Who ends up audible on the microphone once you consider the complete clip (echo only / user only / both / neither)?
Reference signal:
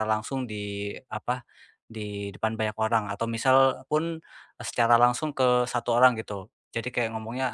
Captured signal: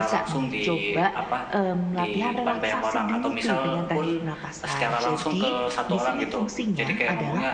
both